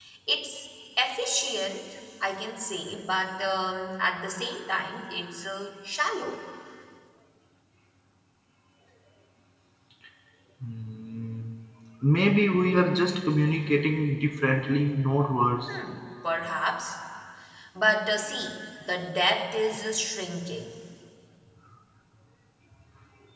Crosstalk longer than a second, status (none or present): none